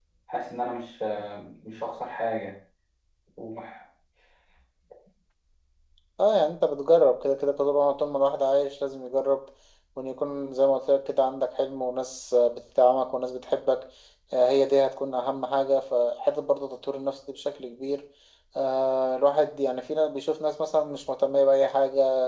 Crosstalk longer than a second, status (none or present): none